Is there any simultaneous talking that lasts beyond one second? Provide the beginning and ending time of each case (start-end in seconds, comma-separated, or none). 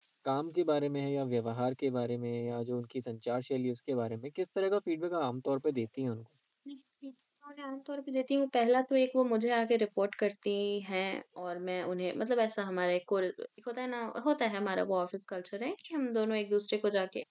none